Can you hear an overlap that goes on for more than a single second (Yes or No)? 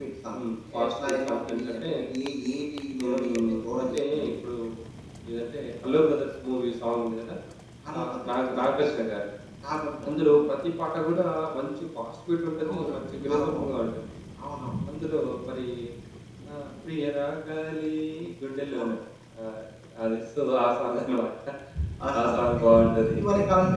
Yes